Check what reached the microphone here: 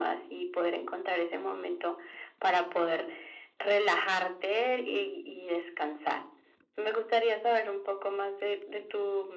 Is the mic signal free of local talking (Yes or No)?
Yes